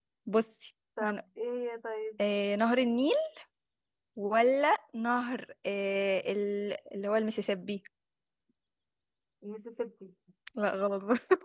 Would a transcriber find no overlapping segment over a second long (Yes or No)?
Yes